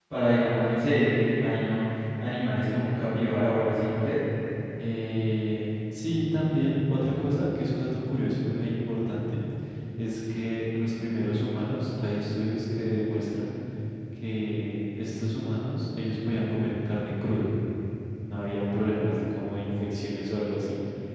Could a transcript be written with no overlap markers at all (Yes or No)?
Yes